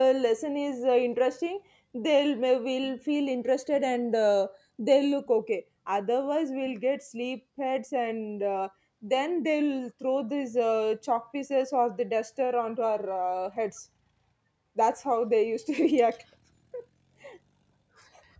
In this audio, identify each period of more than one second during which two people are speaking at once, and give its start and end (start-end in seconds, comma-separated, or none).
none